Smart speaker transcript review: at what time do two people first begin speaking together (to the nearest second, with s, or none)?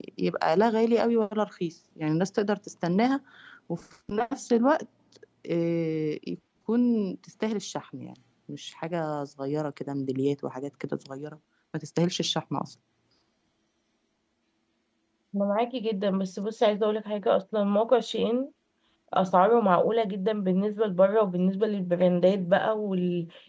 none